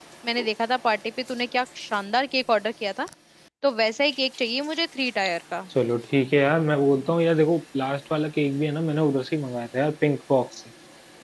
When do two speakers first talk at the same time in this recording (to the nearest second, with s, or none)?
none